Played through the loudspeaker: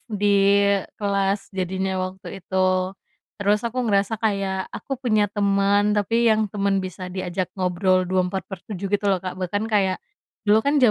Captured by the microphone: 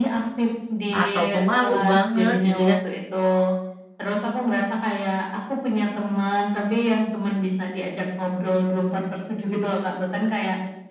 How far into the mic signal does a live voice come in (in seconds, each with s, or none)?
0.9 s